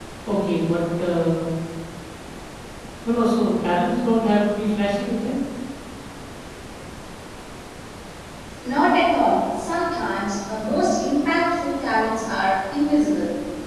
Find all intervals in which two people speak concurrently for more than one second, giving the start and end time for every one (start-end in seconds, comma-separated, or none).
none